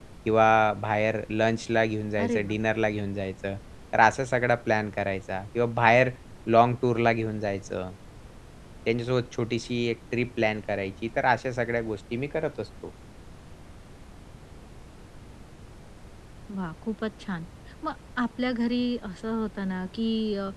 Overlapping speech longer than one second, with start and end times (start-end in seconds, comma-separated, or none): none